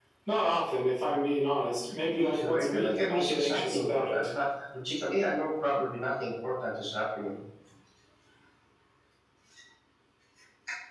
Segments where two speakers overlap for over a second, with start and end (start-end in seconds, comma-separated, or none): 2.1-4.2